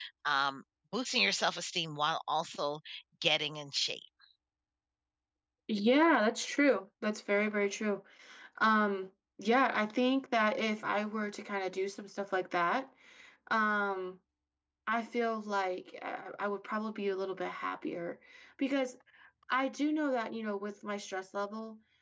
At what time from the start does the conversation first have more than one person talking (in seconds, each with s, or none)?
none